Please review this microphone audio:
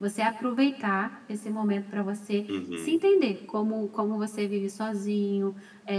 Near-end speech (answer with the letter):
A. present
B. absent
A